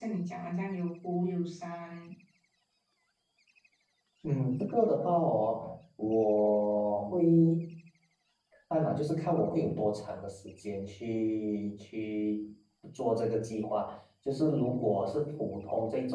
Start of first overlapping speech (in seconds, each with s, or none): none